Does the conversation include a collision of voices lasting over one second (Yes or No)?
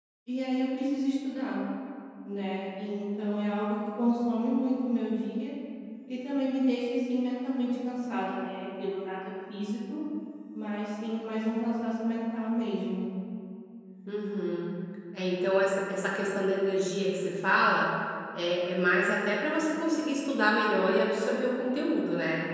No